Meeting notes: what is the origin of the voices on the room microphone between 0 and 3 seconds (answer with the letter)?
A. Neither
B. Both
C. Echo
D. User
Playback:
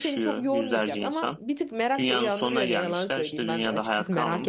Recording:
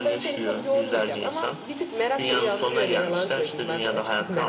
C